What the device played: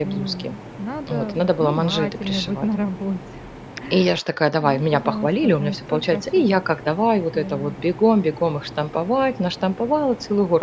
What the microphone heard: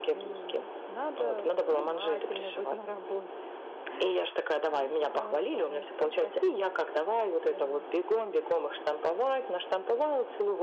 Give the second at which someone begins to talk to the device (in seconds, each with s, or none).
none